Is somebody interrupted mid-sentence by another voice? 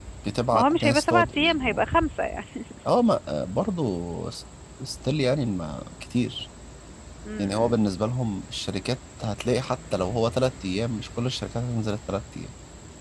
Yes, from 0.5 s

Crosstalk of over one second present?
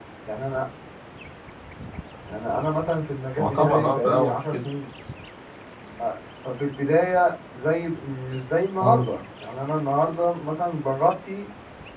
Yes, from 3.4 s

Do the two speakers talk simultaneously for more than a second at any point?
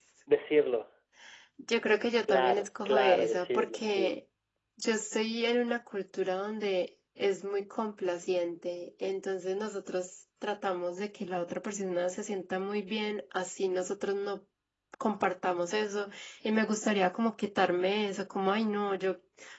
Yes, from 2.3 s

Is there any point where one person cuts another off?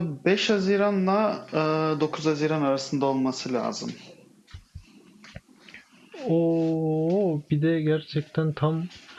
No

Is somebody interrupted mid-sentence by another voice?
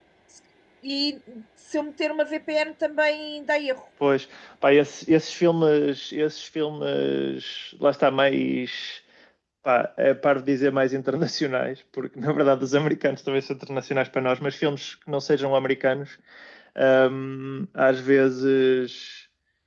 No

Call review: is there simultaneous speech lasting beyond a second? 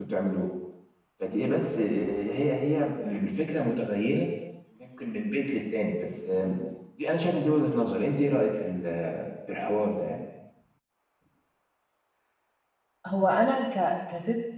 No

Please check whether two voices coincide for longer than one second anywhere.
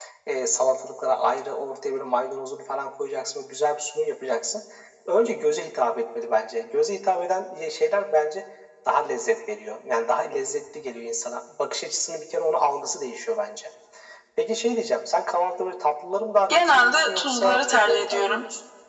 Yes, from 16.5 s

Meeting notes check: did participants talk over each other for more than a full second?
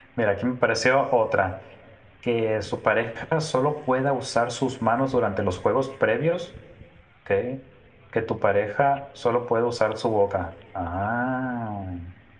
No

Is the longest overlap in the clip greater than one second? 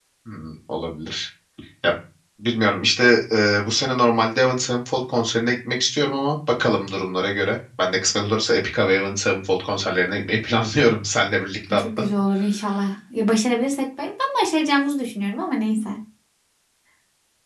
No

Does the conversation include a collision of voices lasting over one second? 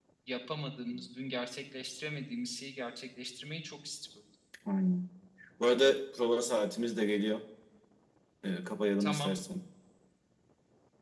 No

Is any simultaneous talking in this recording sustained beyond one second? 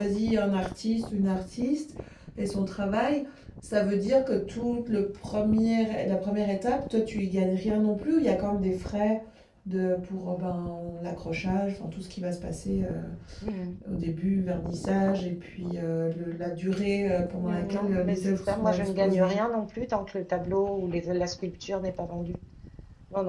Yes, from 17.4 s

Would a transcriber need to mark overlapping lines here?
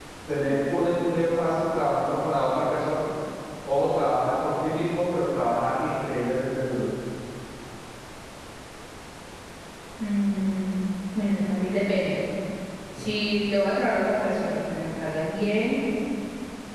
No

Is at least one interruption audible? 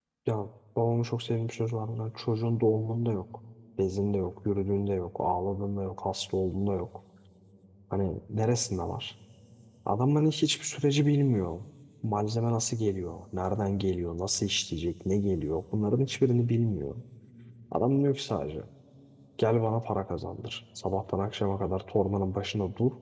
No

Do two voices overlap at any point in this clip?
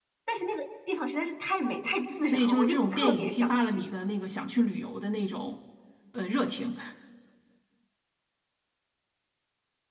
Yes, from 2.1 s

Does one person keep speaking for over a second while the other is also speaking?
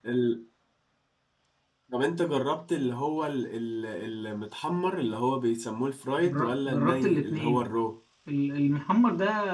Yes, from 6.2 s

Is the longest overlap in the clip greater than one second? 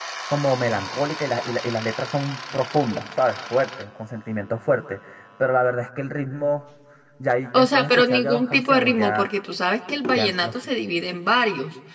Yes, from 7.5 s

